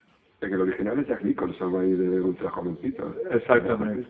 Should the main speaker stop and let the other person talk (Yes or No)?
Yes